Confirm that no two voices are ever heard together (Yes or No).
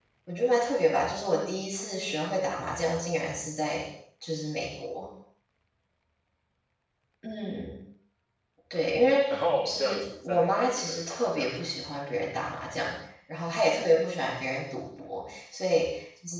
No